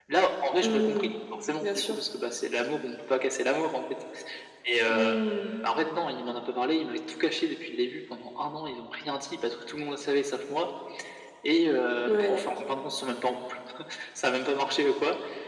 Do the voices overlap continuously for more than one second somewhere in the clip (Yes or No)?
No